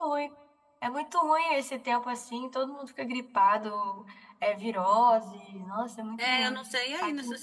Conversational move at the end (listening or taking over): taking over